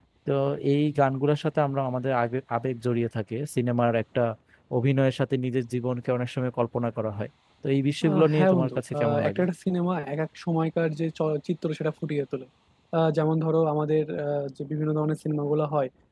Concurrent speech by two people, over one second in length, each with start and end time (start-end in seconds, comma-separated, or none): 8.1-9.4